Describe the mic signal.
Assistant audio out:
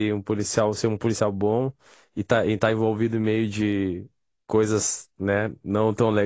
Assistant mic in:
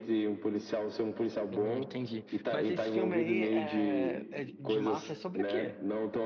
both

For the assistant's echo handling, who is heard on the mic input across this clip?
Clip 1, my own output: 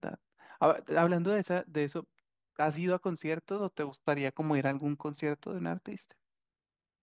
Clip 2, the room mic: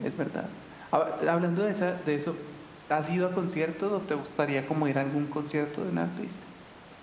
echo only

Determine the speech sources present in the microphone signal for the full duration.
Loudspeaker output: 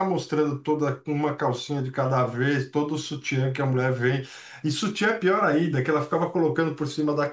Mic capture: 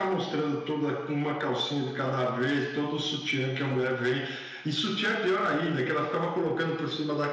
echo only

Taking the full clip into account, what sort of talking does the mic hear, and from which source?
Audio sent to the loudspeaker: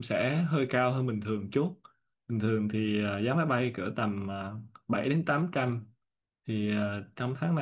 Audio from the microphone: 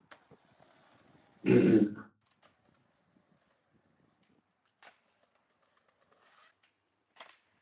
user only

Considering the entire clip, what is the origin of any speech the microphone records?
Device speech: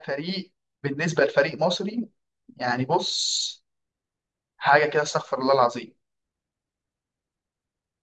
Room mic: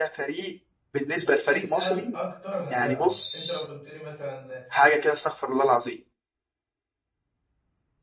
both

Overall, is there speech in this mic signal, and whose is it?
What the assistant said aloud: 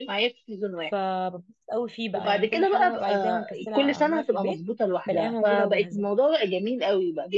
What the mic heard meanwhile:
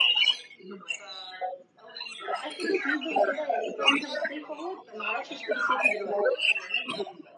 both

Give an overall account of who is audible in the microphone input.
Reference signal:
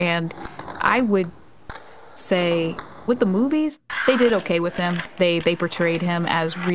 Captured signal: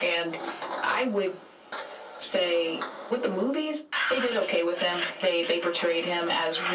echo only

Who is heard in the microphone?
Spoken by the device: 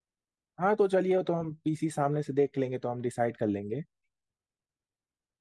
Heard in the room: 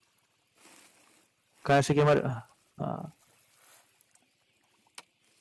user only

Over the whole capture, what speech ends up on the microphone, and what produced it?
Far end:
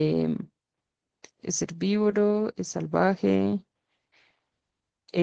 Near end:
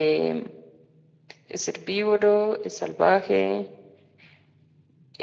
echo only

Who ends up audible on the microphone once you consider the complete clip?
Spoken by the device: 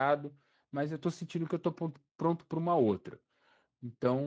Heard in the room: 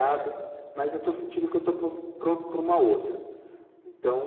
echo only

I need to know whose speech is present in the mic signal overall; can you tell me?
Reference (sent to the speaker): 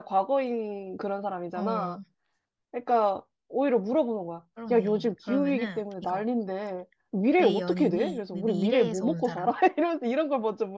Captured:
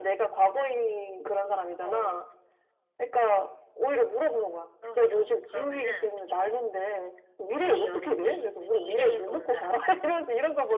echo only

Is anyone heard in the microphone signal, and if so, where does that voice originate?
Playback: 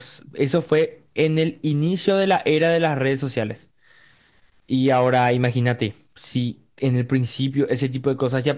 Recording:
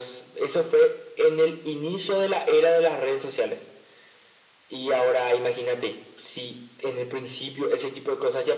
echo only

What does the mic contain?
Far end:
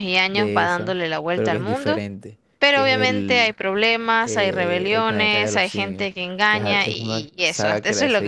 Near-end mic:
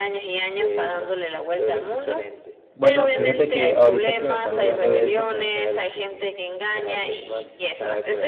both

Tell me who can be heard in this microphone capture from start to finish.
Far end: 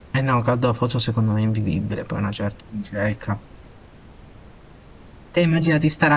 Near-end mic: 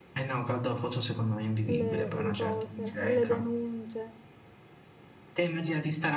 both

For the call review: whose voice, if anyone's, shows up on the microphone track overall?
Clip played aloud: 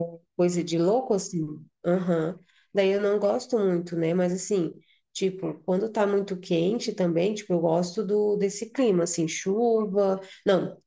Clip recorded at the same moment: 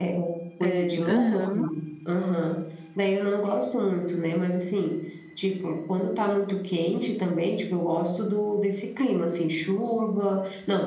both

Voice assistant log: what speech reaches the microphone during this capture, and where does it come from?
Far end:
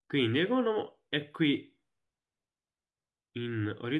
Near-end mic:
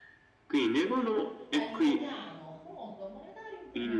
both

